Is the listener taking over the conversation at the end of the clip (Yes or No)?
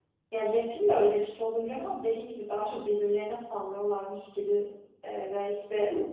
No